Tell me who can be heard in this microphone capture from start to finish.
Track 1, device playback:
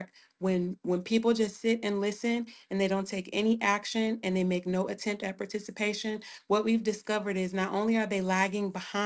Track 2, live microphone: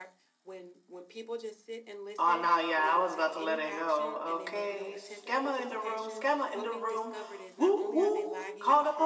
both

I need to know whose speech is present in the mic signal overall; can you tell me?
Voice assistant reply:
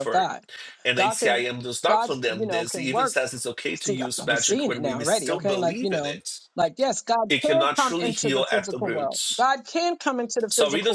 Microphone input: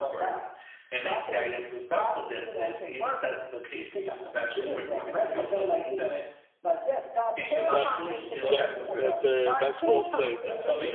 both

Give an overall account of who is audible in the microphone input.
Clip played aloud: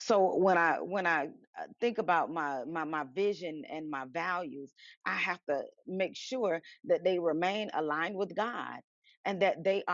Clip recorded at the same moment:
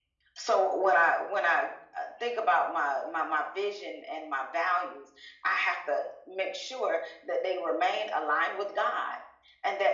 echo only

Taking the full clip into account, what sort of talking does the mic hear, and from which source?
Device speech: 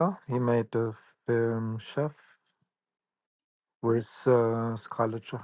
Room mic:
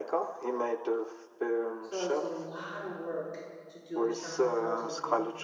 both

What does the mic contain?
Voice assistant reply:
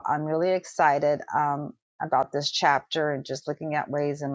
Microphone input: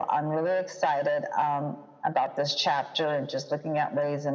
echo only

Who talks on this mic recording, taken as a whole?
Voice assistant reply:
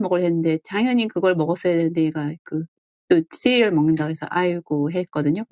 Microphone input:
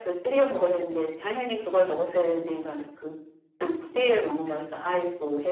echo only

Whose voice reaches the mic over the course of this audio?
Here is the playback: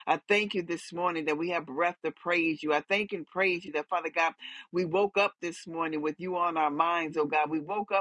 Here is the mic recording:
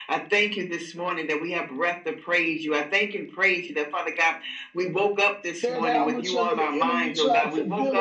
both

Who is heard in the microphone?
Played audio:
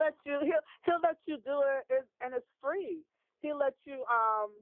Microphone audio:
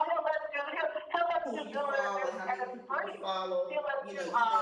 both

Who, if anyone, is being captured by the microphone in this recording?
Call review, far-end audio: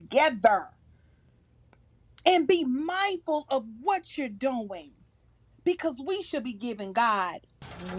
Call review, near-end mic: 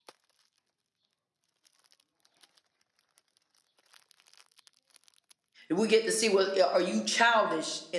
user only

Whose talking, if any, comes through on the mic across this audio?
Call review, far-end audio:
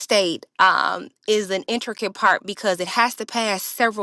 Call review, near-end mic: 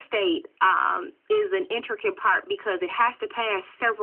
echo only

